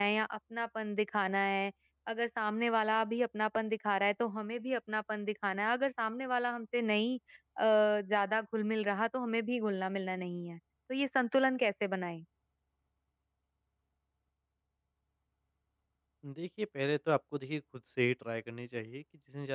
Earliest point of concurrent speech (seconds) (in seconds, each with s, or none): none